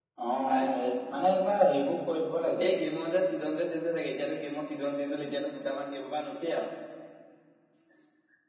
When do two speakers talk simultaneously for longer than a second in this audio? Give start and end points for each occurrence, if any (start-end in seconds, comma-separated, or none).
none